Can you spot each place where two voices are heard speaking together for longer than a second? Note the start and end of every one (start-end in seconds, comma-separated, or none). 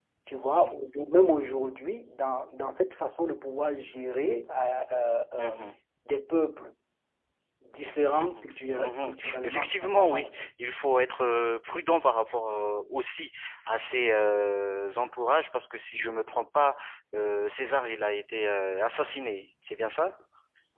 8.8-10.4